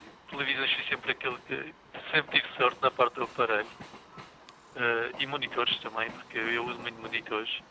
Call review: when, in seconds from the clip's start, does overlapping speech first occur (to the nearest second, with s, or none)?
none